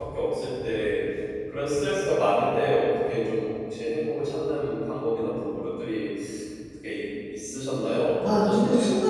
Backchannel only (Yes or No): No